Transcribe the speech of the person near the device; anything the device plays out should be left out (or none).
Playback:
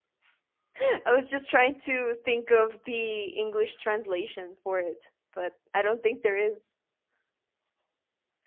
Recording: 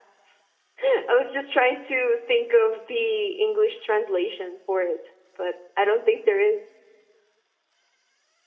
none